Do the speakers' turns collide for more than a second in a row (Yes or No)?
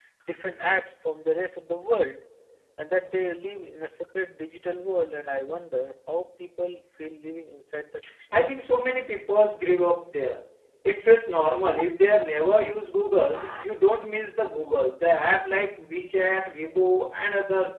No